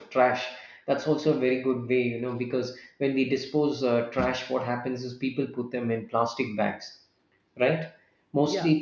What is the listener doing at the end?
listening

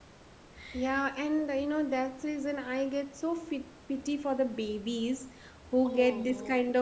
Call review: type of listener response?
listening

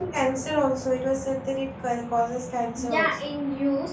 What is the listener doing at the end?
taking over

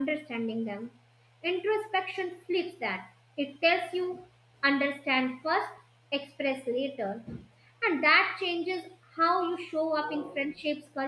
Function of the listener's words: listening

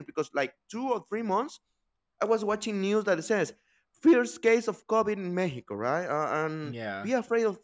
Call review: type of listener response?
listening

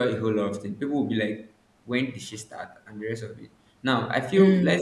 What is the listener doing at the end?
listening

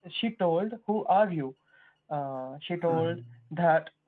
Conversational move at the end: listening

